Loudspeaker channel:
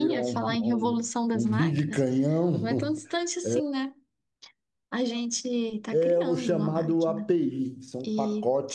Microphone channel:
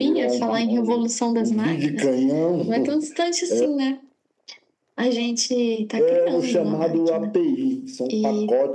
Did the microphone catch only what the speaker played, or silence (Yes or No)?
Yes